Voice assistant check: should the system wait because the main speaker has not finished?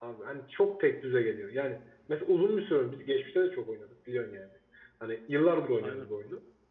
Yes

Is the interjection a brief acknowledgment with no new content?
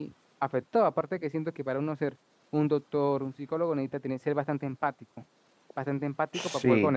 Yes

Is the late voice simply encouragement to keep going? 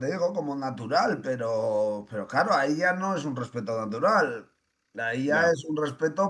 Yes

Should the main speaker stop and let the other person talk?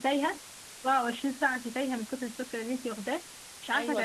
Yes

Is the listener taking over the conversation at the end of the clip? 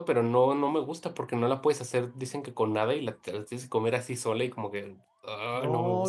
Yes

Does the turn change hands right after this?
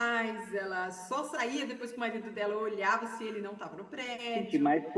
Yes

